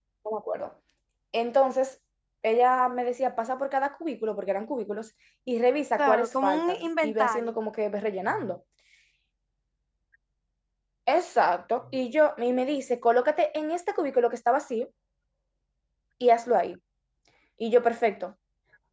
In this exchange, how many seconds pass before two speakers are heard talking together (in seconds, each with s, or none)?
6.0 s